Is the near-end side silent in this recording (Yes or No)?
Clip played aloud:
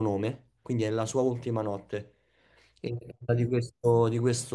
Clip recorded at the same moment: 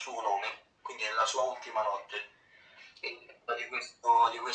Yes